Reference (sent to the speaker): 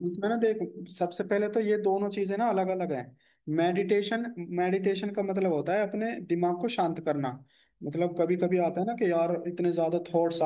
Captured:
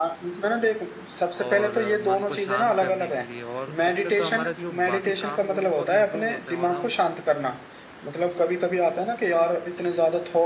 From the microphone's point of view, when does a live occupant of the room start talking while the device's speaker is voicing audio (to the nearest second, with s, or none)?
1 s